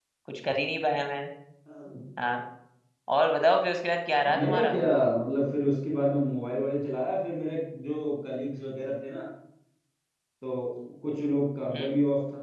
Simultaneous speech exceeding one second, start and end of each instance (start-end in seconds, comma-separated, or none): none